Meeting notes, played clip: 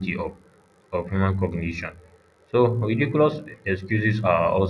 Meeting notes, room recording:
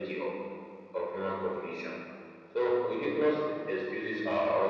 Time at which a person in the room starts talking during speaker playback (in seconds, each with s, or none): none